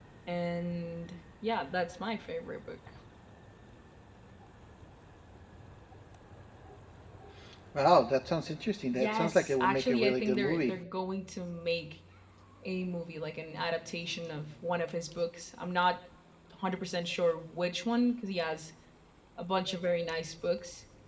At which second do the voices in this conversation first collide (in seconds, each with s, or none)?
8.9 s